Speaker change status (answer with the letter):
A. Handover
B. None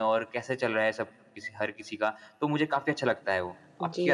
A